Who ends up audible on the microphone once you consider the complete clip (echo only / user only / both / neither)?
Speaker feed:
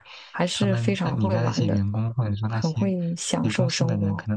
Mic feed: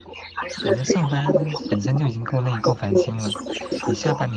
both